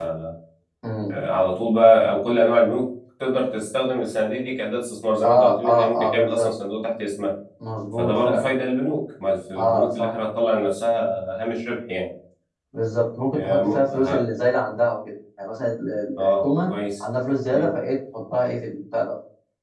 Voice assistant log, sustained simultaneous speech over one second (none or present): present